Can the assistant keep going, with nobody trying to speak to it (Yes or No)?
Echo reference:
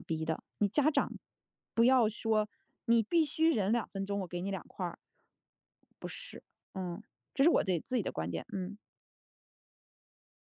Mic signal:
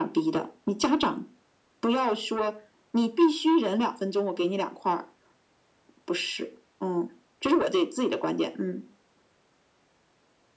Yes